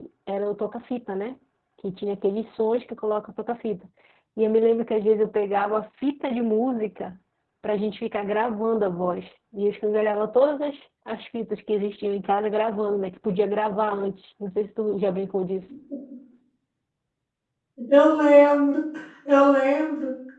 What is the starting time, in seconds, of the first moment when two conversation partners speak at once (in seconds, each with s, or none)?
none